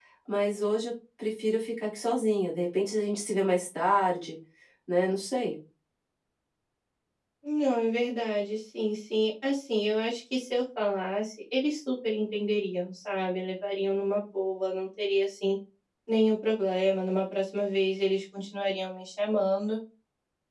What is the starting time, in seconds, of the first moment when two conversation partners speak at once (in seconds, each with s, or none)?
none